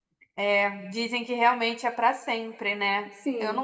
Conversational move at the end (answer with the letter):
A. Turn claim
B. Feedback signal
B